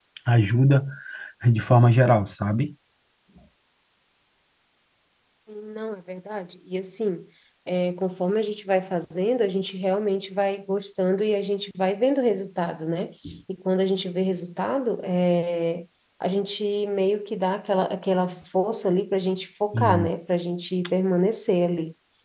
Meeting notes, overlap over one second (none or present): none